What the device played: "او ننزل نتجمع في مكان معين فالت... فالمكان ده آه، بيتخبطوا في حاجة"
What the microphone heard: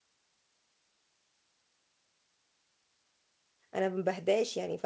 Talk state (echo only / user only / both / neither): user only